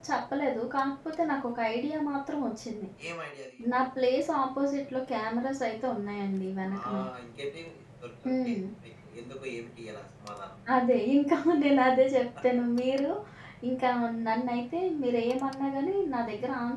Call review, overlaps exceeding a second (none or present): none